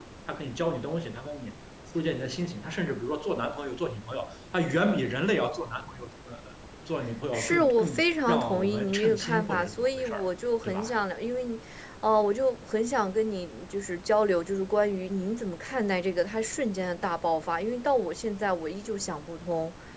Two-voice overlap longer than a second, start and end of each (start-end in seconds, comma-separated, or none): 7.3-10.2